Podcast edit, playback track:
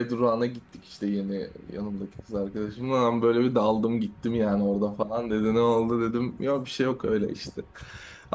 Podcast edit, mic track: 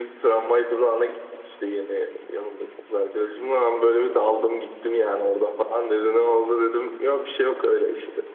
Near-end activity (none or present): none